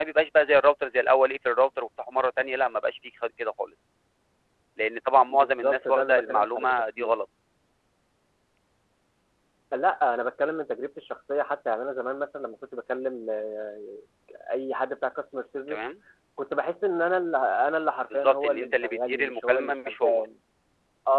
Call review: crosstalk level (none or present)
present